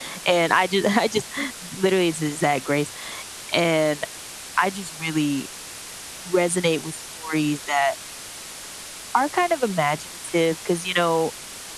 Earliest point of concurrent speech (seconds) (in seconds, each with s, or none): none